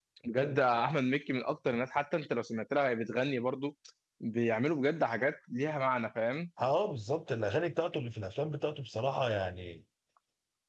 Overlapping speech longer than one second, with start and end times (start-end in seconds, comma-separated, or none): none